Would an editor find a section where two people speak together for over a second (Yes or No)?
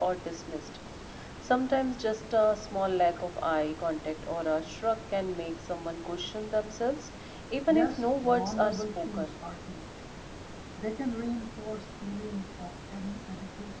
Yes